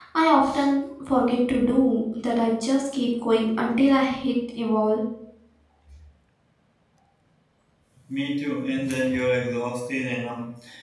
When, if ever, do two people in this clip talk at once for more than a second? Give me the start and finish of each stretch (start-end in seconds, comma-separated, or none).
none